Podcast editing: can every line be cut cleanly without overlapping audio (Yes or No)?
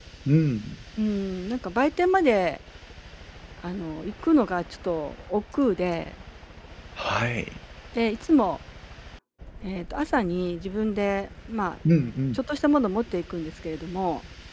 Yes